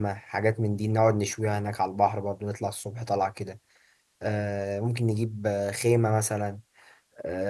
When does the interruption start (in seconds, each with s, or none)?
none